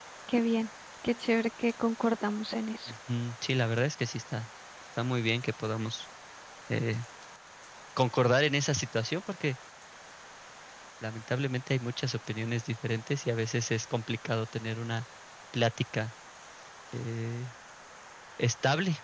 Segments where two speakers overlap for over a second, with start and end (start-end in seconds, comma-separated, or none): none